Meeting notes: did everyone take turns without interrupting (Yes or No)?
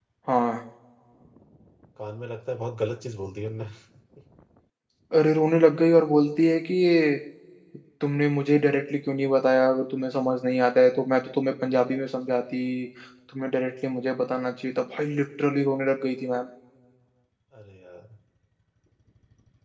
Yes